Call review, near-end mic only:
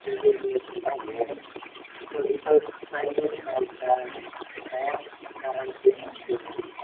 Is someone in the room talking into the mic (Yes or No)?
Yes